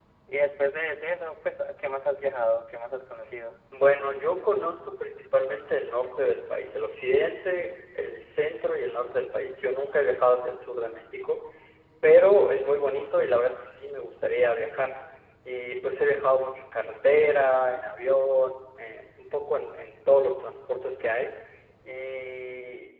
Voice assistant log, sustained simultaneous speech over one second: none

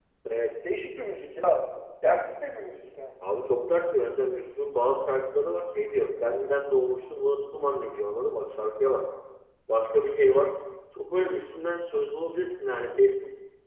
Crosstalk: none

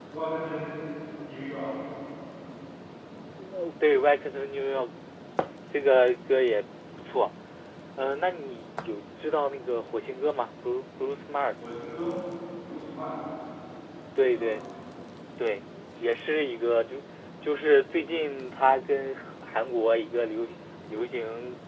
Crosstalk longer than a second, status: none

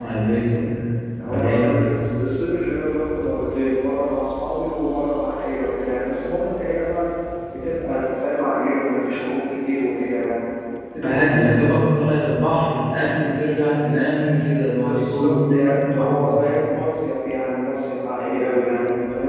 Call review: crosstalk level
present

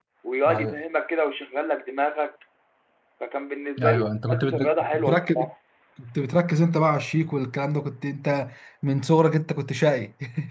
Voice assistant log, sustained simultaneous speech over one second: present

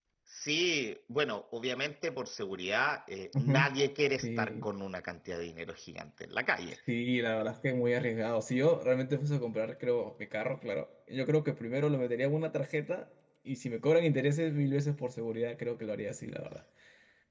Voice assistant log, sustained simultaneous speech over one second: none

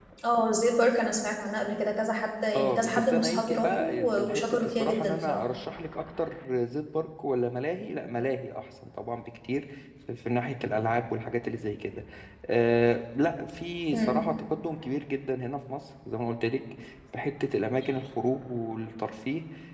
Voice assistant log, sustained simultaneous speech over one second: present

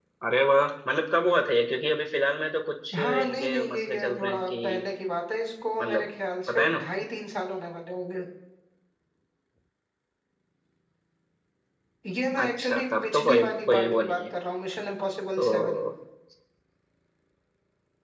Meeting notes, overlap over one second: present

